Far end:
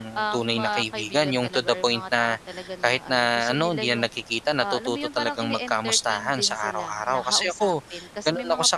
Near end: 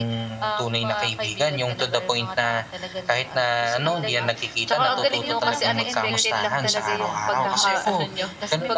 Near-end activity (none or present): present